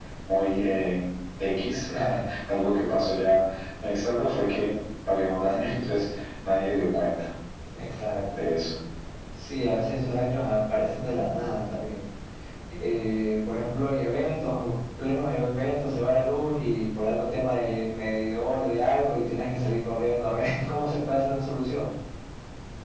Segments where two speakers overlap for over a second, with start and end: none

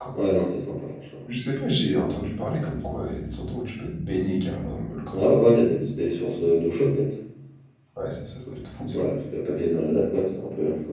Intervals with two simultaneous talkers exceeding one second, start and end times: none

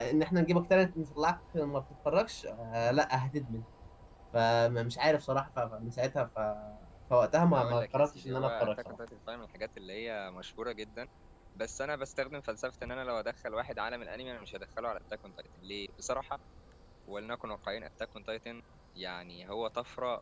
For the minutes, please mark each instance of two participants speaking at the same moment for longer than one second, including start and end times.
7.5-9.0

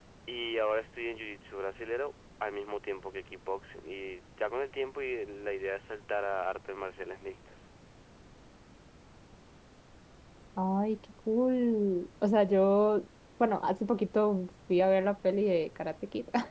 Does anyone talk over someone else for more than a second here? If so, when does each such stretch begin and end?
none

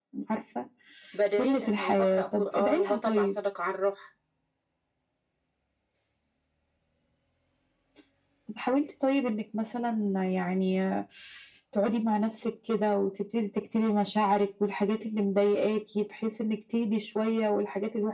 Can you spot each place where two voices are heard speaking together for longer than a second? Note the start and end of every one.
1.3-3.3

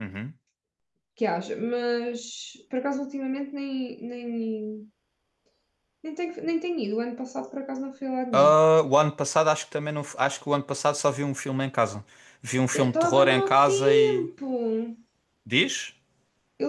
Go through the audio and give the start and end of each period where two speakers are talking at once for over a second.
12.7-14.3

